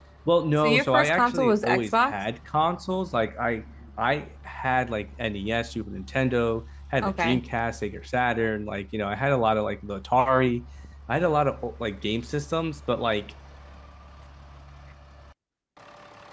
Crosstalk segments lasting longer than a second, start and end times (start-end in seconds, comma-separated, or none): 0.6-2.1